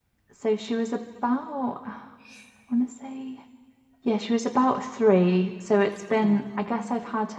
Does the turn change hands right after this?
No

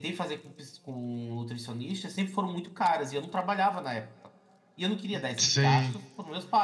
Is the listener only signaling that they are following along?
Yes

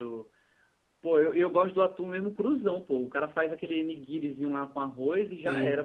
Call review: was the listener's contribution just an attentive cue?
No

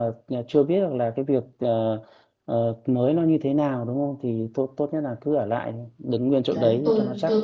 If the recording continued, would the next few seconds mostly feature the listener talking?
Yes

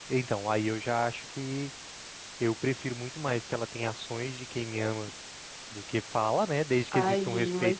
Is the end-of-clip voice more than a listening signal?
Yes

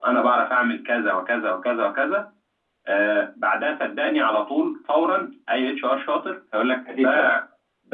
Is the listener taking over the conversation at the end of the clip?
No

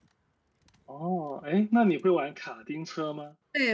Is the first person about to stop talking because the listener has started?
Yes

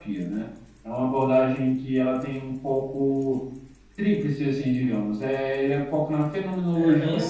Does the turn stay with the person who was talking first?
No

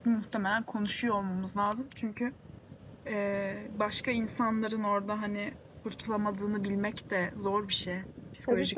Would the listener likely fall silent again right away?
No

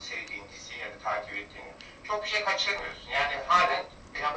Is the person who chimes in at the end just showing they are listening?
Yes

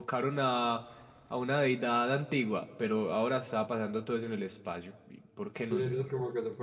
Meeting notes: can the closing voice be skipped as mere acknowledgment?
No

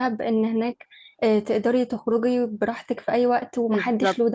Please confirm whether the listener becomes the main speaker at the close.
Yes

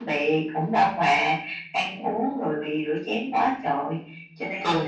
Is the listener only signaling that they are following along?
No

